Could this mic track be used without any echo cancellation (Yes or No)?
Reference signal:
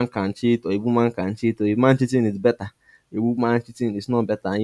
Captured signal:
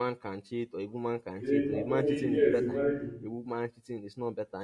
No